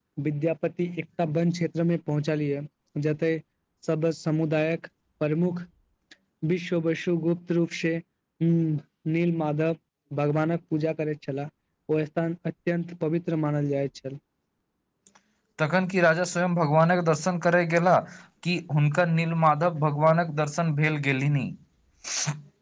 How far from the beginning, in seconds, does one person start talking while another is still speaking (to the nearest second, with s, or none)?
none